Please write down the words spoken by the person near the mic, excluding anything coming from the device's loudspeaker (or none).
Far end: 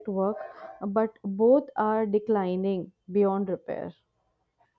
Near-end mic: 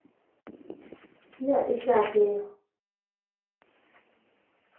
Yeah, exactly.